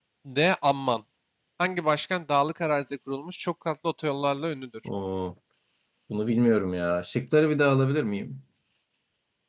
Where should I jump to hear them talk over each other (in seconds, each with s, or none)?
none